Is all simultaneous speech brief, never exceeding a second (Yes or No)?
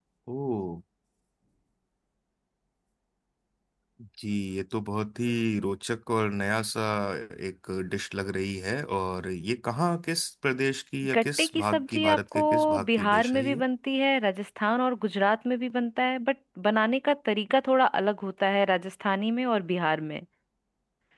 No